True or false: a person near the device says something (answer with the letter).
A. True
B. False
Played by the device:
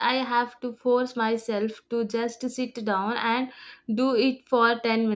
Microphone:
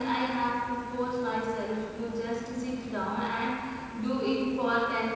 B